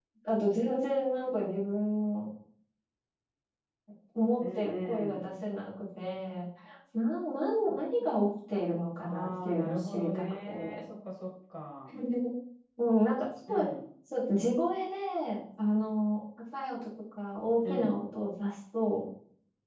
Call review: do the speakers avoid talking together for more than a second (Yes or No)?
No